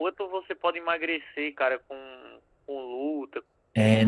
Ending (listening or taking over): taking over